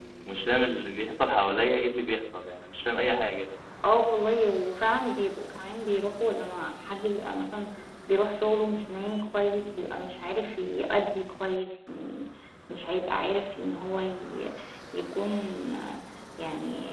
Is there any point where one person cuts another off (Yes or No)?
No